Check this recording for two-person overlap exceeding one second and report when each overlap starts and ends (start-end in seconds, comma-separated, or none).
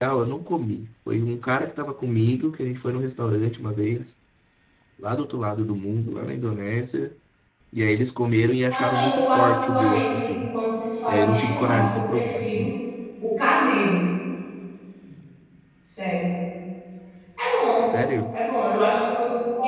8.7-10.5, 11.1-12.6